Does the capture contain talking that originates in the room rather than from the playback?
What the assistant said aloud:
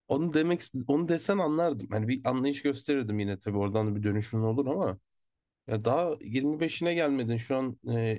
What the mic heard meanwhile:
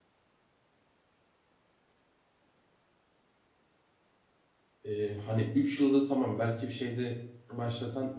Yes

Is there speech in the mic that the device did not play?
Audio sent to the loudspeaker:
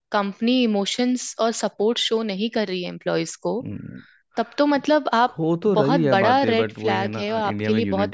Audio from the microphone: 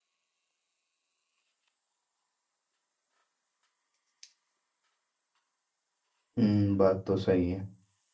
Yes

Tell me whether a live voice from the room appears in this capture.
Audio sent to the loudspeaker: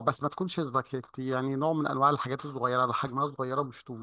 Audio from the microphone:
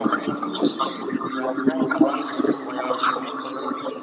No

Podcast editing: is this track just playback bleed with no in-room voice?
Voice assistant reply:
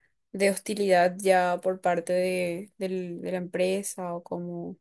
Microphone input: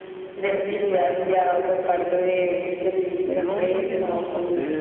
No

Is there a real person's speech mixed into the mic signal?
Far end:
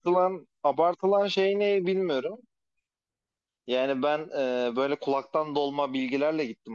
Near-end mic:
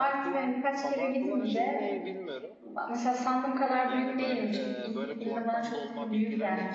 Yes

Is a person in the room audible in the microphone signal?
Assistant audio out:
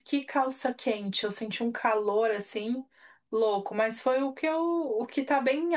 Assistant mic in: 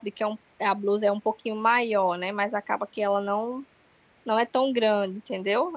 Yes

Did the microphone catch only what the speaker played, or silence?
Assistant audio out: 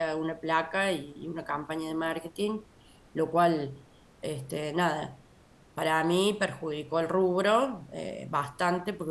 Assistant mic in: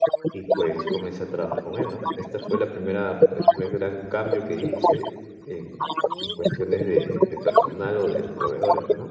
No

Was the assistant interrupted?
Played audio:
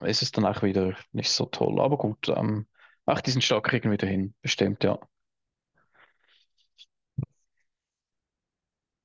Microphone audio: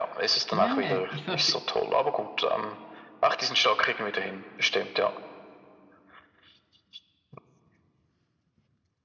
Yes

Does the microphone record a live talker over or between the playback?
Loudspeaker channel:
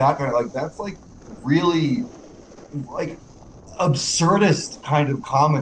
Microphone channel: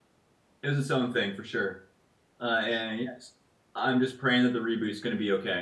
Yes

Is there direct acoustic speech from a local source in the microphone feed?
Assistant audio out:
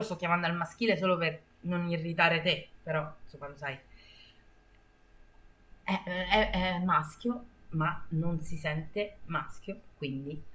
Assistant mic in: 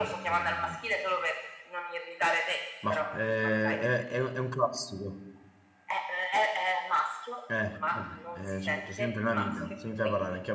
Yes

